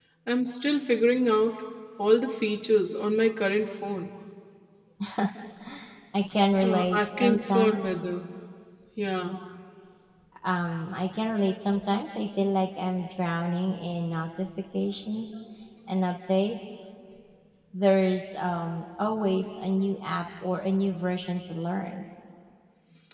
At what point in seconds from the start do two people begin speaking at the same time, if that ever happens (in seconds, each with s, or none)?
6.6 s